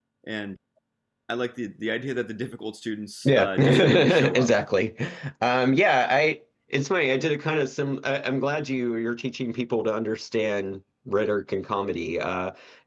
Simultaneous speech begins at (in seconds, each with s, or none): 3.2 s